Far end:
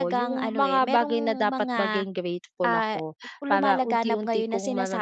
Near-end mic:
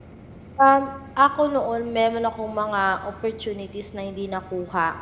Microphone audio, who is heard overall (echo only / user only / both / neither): user only